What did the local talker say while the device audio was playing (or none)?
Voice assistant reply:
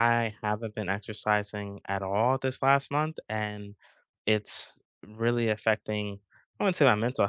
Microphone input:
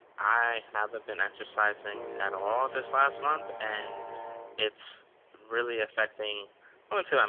none